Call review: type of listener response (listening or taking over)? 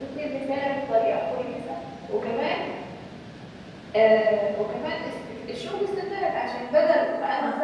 listening